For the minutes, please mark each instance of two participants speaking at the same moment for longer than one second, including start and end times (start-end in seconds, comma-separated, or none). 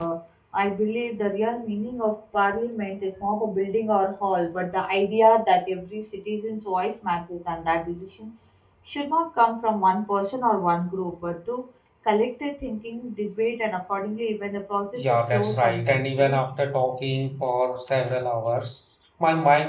14.9-16.4